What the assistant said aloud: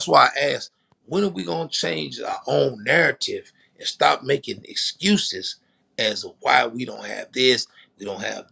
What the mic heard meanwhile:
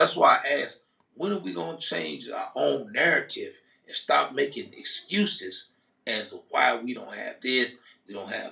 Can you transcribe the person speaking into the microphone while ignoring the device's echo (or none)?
none